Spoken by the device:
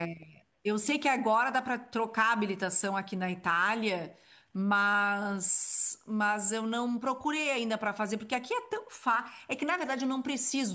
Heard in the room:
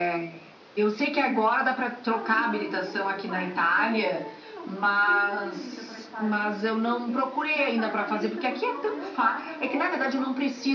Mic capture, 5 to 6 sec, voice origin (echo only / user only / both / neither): both